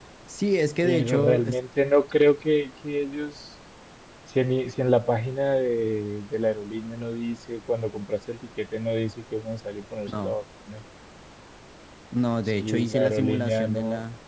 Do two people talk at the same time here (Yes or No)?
Yes